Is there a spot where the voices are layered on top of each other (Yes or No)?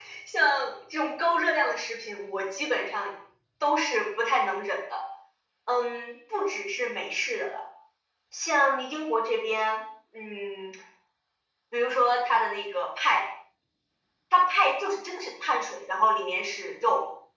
No